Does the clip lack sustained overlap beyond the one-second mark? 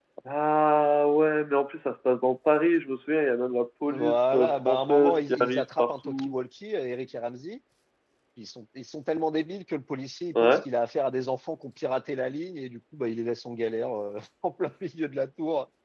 No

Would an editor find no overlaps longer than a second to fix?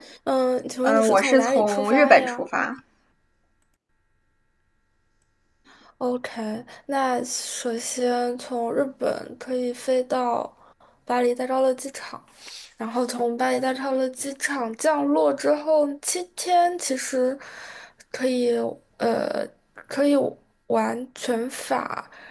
No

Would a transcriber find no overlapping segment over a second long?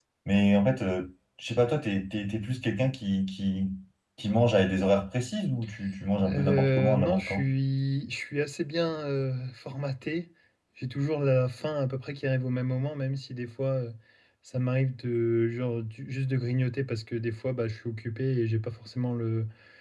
No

